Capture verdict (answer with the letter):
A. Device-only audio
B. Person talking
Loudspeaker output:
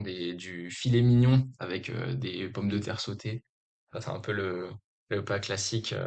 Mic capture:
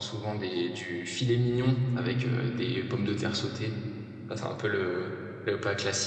A